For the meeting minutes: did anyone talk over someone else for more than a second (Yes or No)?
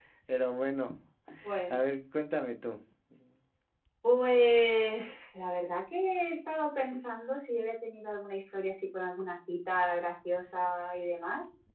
No